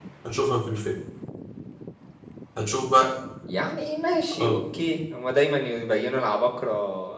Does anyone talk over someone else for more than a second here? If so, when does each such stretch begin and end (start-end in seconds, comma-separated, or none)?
none